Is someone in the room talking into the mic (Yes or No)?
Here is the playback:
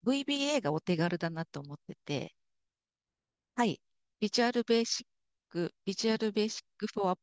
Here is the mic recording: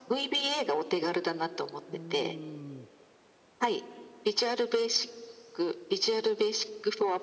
Yes